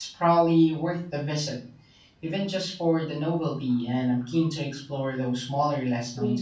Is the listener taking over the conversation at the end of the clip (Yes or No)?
Yes